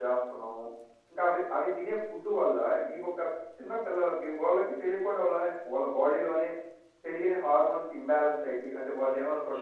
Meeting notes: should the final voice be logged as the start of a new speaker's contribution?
Yes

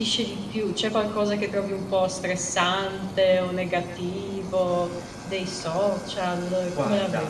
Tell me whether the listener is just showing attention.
No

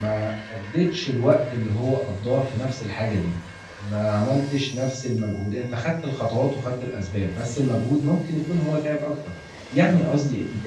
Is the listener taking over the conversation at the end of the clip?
No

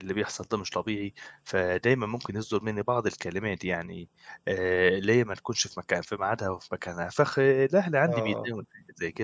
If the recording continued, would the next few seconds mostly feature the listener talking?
No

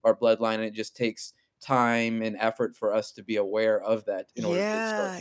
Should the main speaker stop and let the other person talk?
Yes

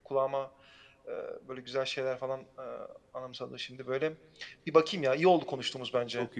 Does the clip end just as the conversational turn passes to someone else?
Yes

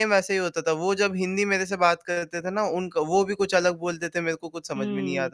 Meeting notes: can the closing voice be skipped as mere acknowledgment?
No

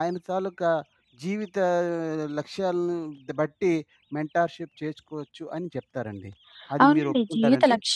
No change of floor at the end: No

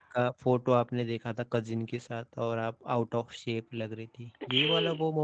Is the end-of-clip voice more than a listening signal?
Yes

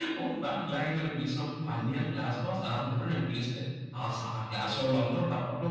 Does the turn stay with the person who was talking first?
Yes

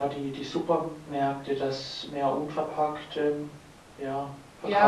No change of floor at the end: No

